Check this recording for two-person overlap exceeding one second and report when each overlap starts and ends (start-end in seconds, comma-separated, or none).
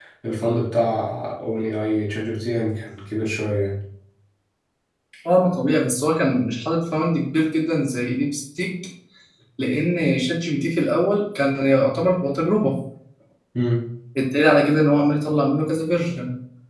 none